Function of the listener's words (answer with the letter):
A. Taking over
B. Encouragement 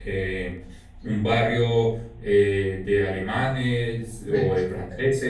B